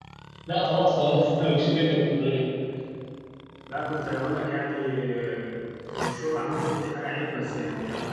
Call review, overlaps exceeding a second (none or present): none